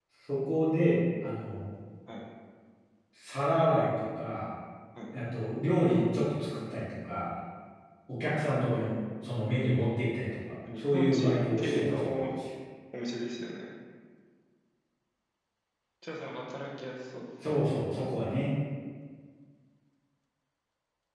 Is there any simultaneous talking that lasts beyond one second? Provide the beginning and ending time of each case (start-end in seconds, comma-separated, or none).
10.8-12.2